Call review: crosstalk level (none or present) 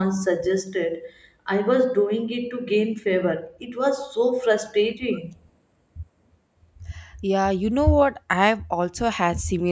none